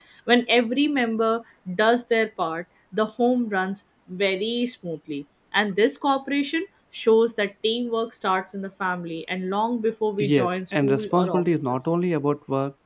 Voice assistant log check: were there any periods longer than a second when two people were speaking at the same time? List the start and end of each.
10.2-11.9

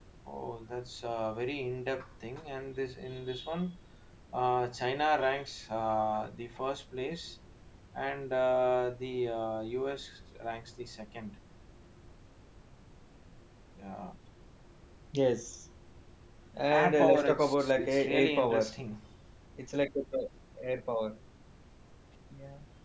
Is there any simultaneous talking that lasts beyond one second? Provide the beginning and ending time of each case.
16.7-18.8

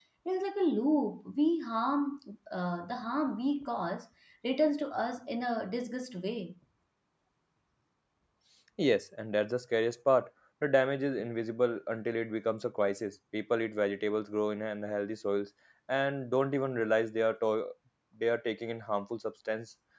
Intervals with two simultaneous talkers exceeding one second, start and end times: none

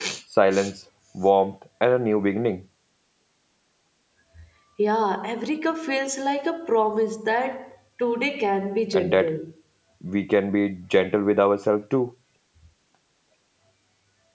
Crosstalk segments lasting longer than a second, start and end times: none

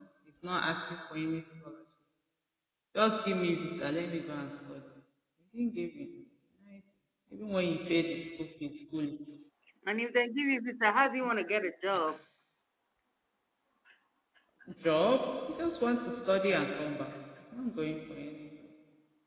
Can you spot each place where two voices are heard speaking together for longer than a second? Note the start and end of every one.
none

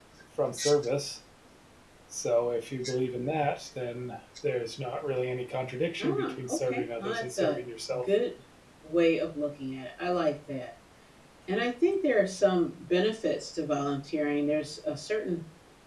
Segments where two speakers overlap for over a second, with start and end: 6.0-7.6

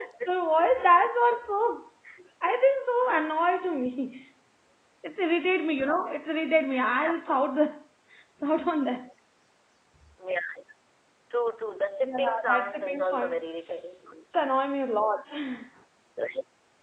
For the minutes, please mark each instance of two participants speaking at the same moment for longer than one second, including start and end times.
12.0-13.4

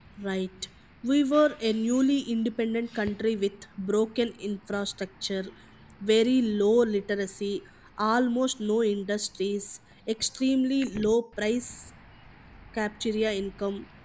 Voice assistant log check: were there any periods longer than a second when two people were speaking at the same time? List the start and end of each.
none

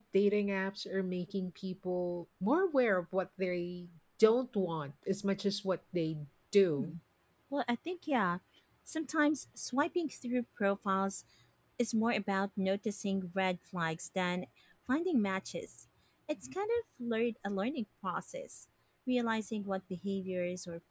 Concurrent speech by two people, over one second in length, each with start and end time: none

